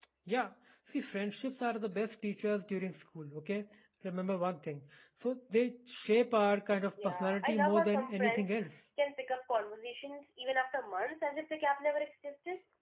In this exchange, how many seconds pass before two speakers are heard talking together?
7.0 s

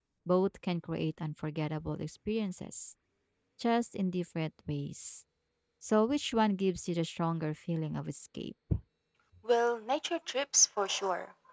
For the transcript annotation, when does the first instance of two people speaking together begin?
none

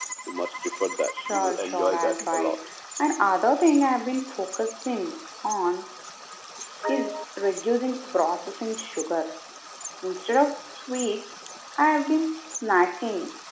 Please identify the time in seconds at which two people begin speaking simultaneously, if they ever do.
1.3 s

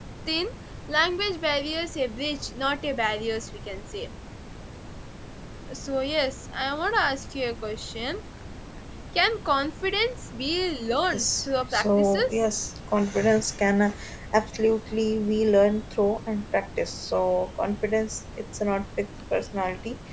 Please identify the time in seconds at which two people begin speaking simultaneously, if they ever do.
10.9 s

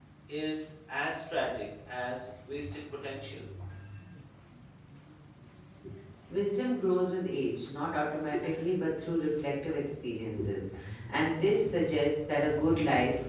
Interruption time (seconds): none

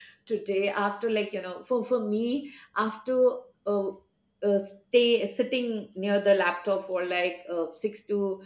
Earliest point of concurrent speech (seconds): none

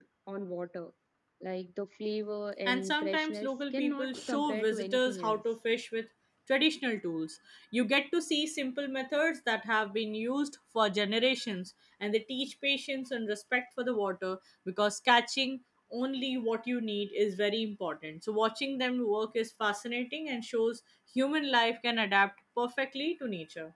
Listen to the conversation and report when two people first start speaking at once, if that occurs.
2.6 s

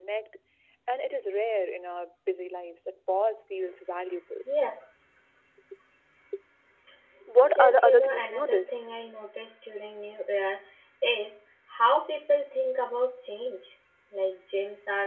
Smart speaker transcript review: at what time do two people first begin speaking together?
7.5 s

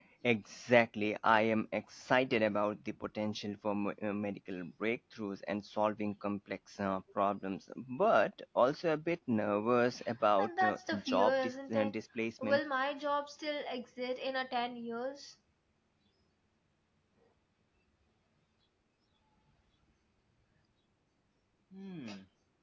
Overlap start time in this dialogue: 10.4 s

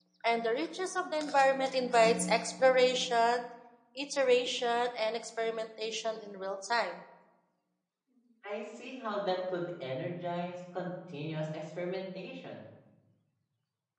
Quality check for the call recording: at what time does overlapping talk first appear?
none

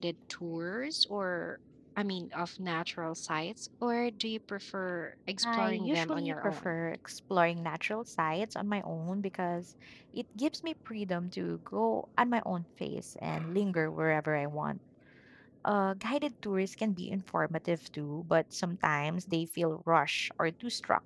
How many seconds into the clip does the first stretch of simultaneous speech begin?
5.4 s

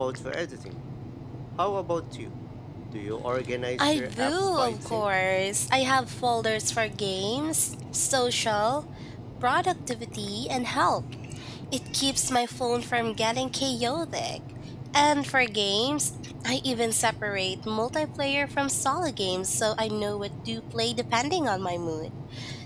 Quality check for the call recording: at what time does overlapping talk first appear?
3.8 s

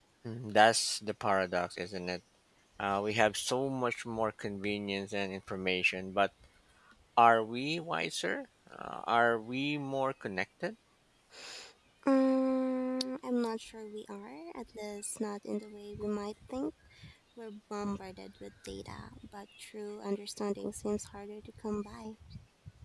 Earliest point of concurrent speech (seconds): none

